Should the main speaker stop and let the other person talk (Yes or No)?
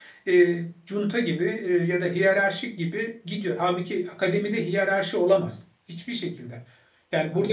No